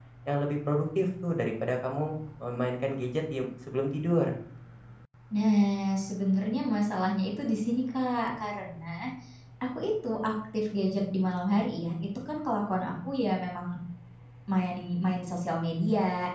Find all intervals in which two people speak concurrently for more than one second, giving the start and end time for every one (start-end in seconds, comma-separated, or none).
none